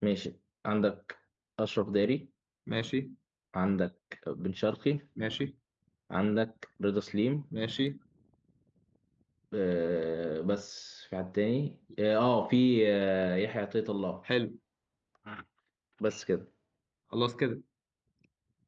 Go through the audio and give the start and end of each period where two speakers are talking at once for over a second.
none

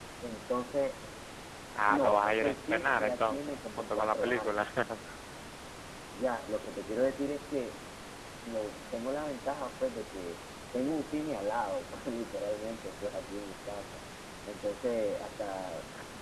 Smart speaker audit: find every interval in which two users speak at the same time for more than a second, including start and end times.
1.9-4.7

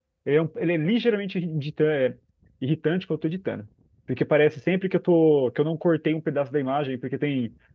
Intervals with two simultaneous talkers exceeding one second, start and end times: none

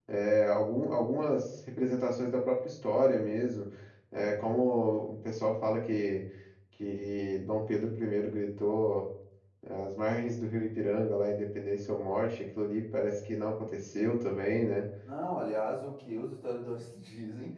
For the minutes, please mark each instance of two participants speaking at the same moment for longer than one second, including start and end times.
none

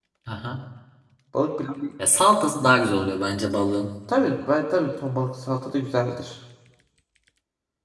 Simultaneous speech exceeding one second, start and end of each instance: none

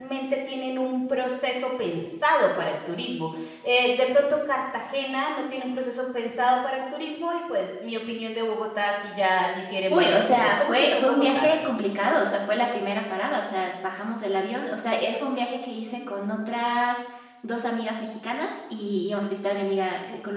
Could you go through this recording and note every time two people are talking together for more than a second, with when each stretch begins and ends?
9.9-11.8

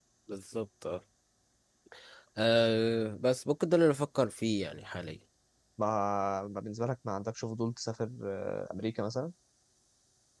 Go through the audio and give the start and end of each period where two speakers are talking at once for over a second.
none

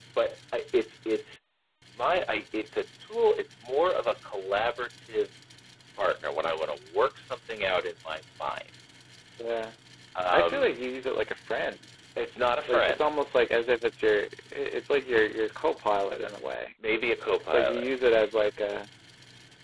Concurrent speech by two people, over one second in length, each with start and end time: none

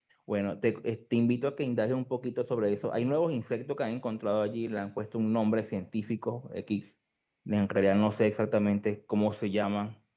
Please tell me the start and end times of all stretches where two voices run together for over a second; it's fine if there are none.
none

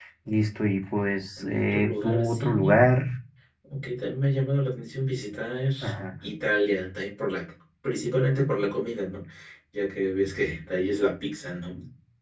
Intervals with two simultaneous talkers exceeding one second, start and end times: 1.4-2.7

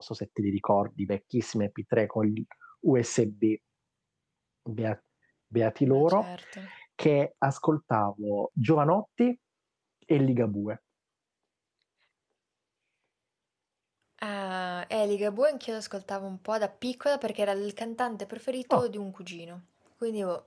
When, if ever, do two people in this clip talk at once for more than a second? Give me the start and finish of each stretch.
none

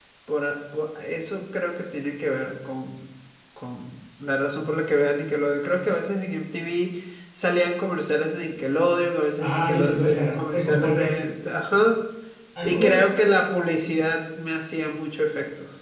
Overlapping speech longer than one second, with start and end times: 9.4-11.1

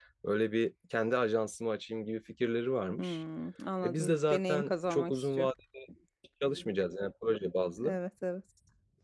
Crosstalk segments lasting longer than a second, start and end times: 3.8-5.4

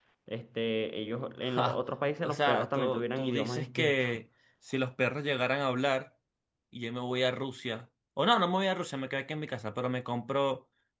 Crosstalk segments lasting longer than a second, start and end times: 2.2-4.1

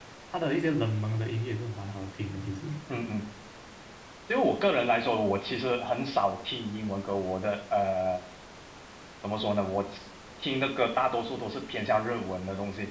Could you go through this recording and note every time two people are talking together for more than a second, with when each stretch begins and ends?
none

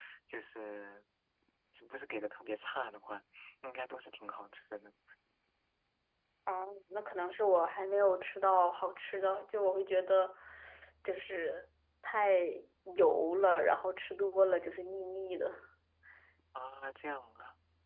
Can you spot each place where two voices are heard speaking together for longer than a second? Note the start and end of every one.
none

